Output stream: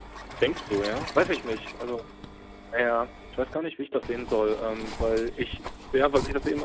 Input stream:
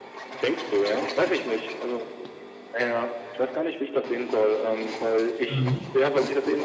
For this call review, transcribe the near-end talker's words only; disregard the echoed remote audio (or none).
Mhm.